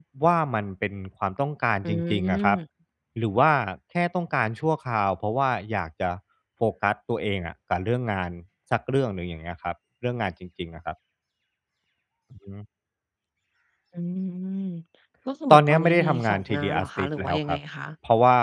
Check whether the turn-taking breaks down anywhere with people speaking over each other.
Yes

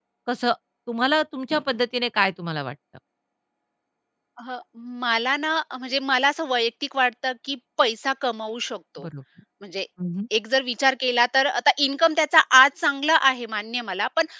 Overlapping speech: No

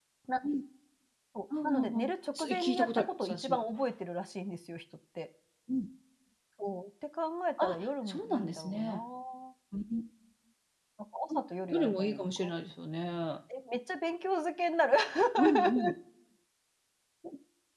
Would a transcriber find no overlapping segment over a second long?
No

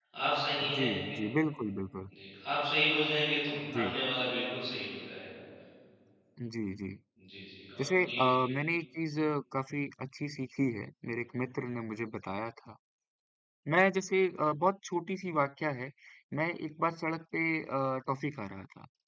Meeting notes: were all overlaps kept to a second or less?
Yes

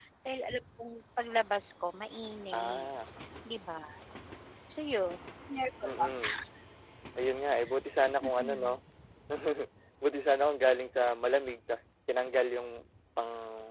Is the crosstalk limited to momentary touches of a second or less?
Yes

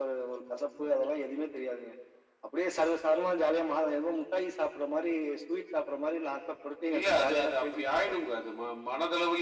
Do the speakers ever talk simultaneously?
Yes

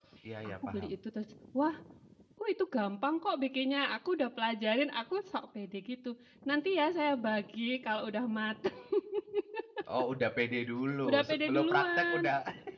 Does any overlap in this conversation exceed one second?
Yes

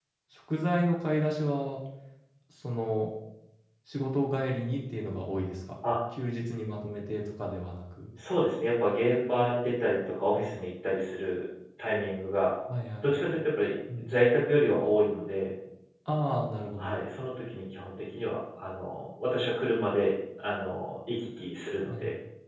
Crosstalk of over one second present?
No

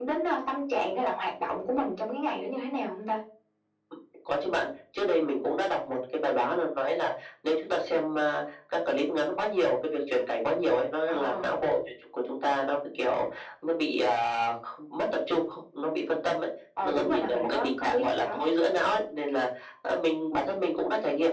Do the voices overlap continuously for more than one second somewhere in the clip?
Yes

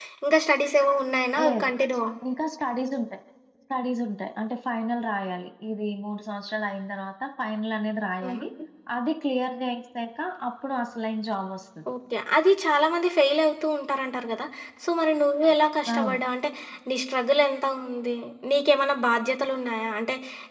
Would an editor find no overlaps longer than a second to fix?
Yes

